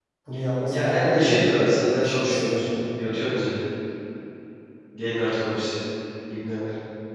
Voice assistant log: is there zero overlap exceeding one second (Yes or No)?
No